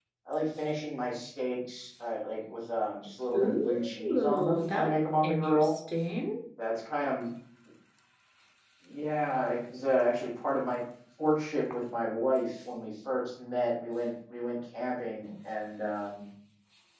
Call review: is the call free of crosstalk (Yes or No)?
No